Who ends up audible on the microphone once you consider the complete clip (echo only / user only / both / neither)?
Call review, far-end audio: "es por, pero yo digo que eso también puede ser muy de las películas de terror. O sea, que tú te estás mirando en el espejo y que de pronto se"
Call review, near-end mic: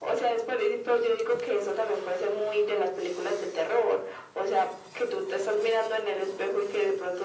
echo only